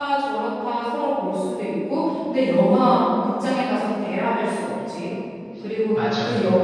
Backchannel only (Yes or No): Yes